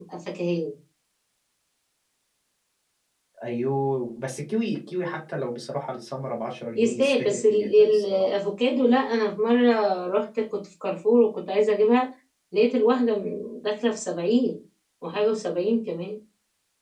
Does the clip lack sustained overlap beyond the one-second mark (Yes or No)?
No